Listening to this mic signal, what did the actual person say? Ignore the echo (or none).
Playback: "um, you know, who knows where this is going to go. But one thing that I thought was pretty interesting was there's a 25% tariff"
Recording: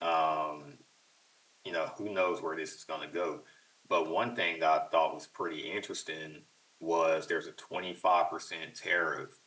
none